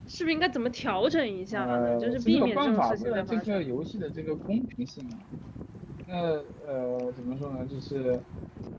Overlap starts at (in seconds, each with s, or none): 1.5 s